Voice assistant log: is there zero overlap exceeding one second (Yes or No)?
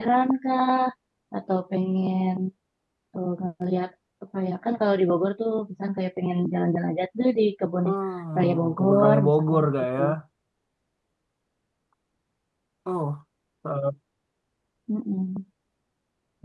No